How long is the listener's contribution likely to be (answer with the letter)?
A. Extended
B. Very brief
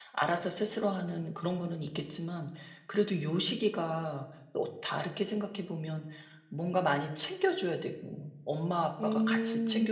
B